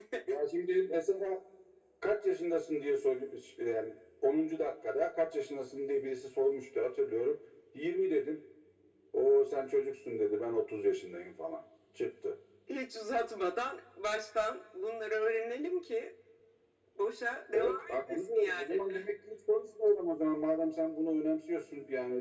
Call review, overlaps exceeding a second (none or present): present